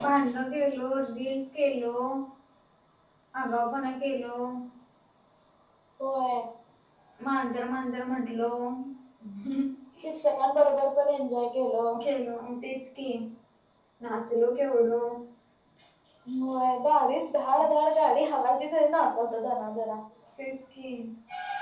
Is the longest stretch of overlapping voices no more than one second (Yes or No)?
Yes